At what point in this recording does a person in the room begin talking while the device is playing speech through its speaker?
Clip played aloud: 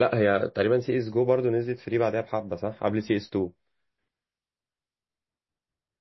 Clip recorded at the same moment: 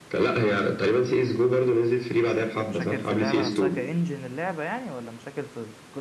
2.6 s

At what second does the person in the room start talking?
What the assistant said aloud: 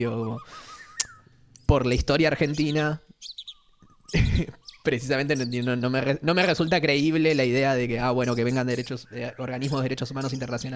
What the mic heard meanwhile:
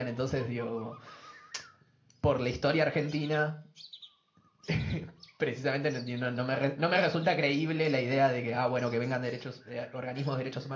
none

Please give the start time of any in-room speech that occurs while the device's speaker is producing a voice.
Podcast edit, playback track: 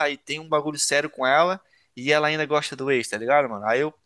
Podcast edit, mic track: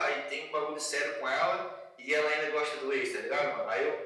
none

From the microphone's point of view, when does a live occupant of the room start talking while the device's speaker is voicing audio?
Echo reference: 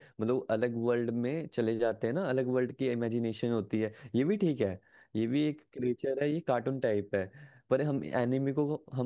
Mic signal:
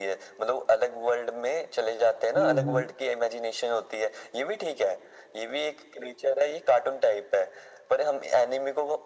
2.4 s

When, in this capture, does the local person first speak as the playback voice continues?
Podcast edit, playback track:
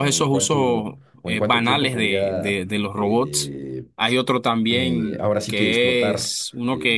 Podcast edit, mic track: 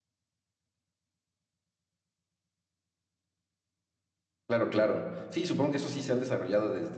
4.5 s

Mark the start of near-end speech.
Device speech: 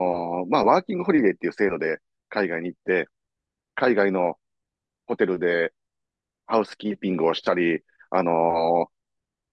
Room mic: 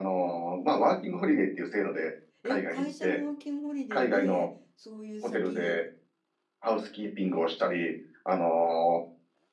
2.4 s

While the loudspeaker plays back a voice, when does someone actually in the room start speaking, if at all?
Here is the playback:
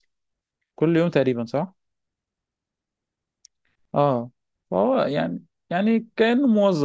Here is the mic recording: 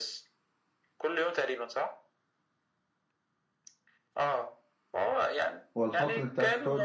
5.8 s

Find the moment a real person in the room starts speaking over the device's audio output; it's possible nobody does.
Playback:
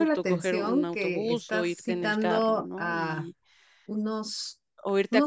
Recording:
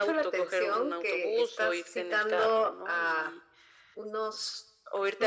none

